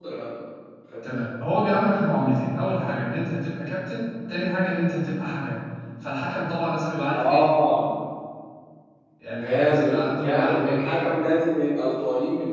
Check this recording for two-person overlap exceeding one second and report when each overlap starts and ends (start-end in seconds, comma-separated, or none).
9.4-11.0